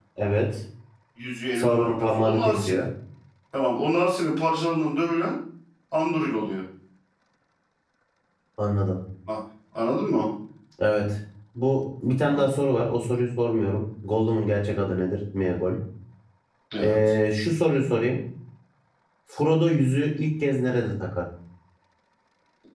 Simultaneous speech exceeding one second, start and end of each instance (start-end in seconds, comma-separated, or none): 1.6-2.8